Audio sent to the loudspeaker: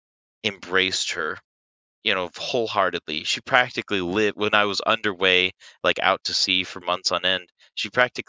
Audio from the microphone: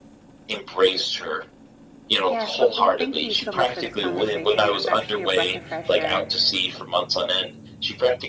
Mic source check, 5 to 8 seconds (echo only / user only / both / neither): both